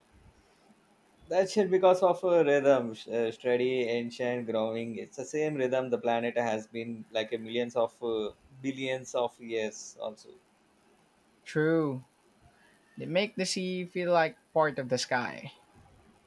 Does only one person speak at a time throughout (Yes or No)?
Yes